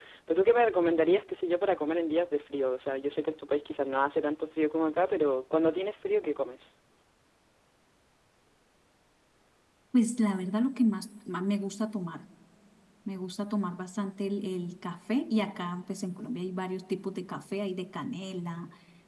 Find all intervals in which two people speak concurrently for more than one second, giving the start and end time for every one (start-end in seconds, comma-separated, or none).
none